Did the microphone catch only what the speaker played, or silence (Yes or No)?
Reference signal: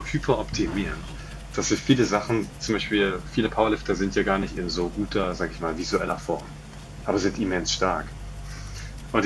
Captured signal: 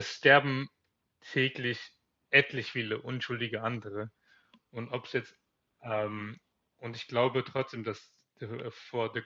No